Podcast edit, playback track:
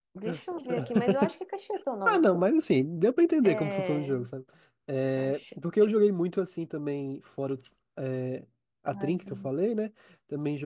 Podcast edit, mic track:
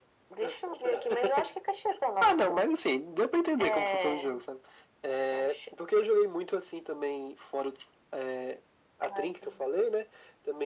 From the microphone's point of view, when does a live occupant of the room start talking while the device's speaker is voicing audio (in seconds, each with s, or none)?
none